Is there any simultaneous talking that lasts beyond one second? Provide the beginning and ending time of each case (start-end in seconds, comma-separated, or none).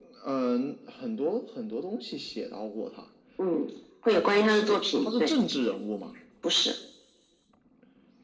4.1-5.3